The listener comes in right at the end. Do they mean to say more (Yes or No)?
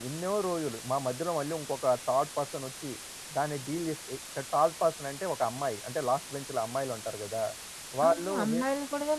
Yes